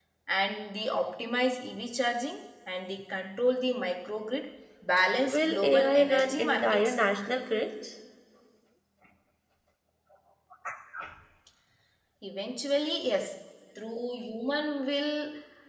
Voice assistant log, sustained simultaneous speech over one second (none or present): present